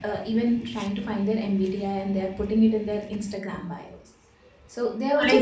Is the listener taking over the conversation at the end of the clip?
No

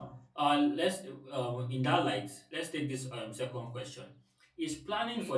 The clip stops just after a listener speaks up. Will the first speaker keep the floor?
Yes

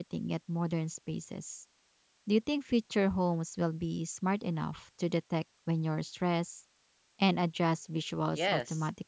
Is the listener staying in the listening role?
No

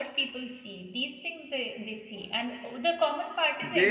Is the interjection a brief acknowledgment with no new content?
No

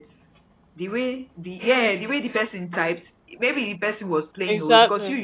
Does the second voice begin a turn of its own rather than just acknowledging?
No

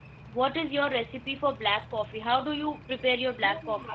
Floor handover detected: Yes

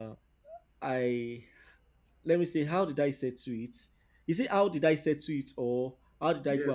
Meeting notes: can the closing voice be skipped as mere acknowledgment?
No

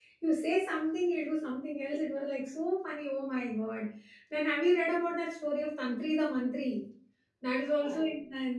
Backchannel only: Yes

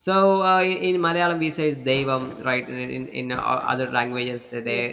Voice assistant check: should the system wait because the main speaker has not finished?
Yes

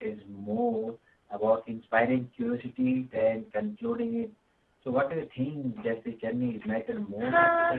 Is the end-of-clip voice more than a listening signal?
Yes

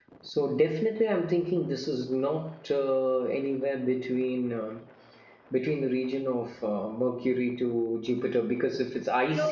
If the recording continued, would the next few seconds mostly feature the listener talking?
Yes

